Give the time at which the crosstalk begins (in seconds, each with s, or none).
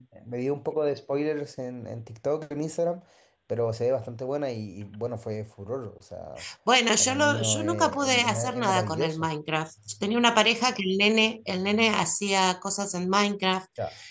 7.0 s